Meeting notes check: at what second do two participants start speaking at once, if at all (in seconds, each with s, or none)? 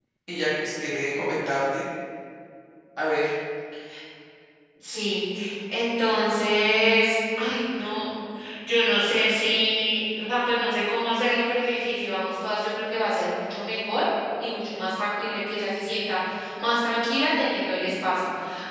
none